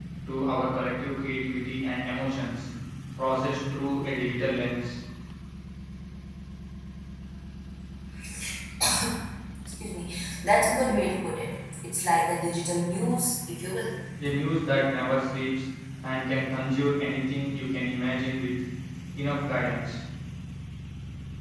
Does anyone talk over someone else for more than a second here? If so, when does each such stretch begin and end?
none

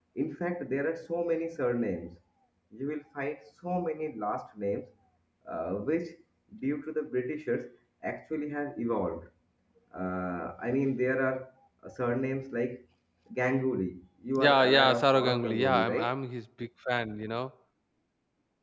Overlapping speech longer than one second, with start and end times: 14.4-16.1

